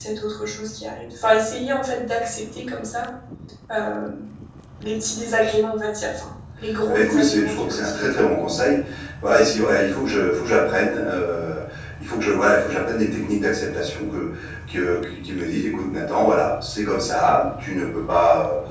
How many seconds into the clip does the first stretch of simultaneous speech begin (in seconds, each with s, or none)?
6.8 s